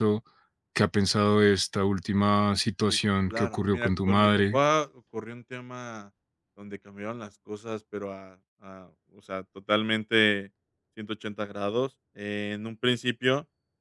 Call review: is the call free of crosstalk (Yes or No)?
No